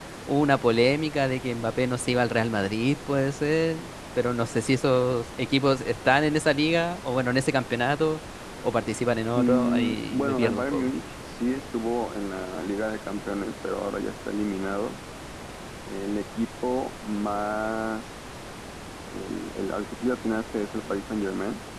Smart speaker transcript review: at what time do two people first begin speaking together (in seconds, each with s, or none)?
9.4 s